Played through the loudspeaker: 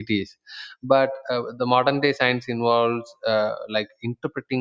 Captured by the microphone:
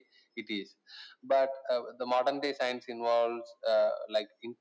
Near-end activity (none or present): none